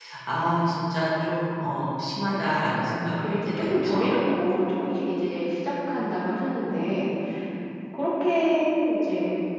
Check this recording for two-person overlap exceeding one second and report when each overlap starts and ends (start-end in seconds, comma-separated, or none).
2.7-4.2